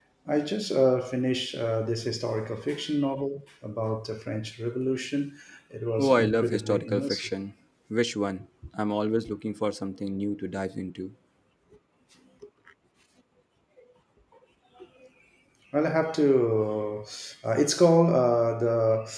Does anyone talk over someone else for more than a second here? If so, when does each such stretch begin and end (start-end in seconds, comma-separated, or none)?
6.0-7.3